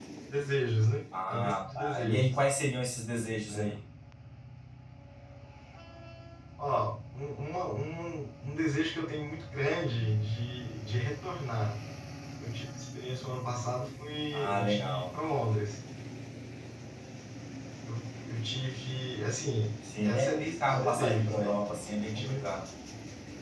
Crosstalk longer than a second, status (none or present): present